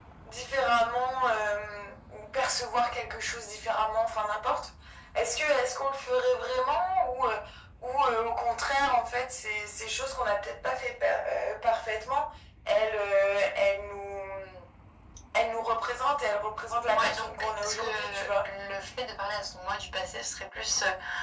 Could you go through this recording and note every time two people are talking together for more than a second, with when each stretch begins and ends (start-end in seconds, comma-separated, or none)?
16.9-18.5